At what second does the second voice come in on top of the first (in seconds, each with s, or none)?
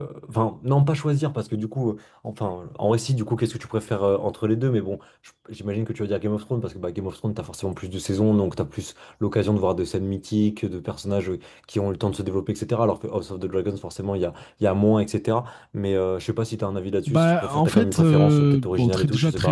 17.1 s